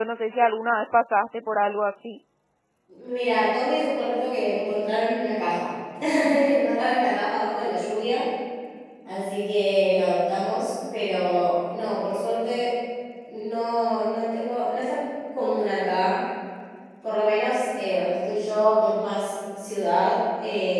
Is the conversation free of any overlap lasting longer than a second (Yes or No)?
Yes